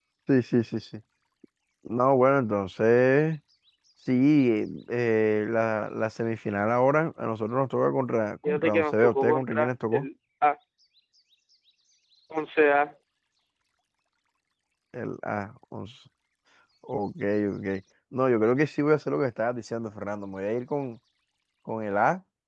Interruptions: present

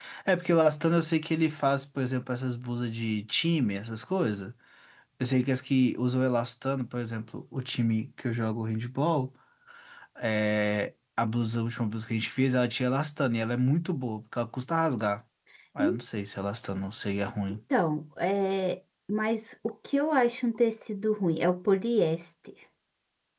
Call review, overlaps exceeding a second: none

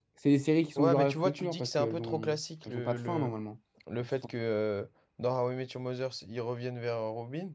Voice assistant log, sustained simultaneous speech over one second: present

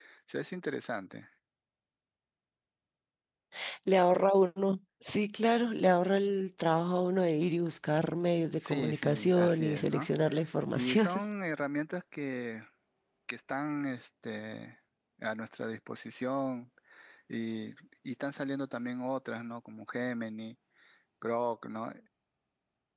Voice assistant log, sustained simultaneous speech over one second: present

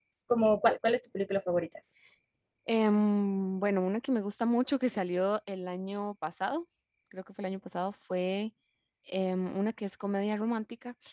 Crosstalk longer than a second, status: none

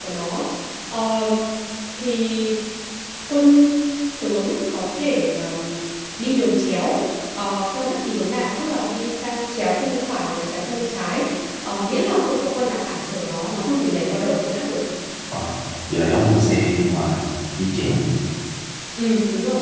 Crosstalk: none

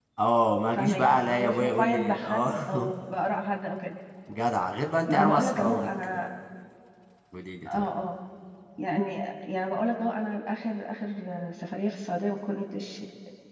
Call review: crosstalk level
present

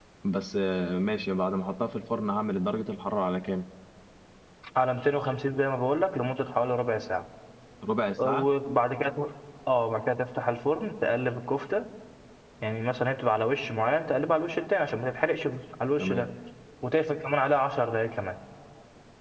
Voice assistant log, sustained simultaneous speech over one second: none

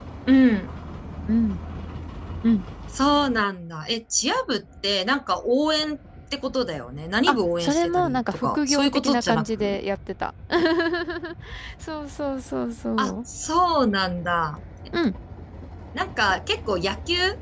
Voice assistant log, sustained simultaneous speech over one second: present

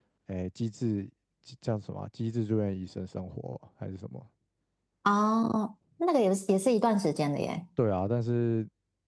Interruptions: none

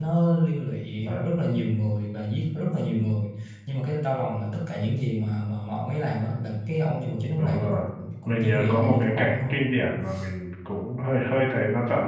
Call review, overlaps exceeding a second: present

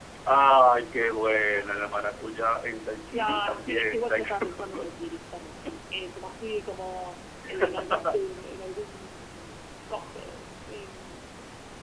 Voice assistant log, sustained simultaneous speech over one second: present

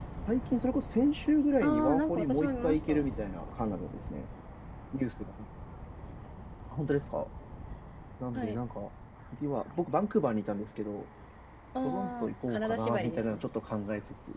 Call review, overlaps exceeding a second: present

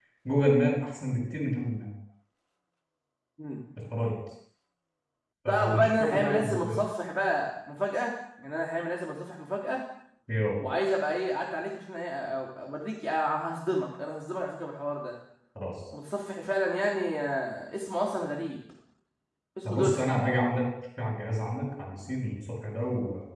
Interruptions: present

